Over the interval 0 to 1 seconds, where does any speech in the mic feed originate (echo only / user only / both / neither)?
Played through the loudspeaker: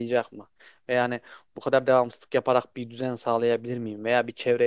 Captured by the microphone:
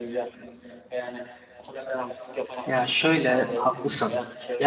echo only